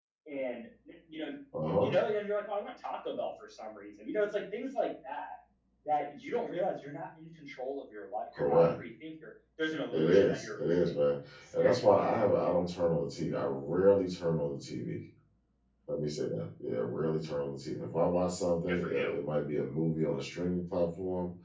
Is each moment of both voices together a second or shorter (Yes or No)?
No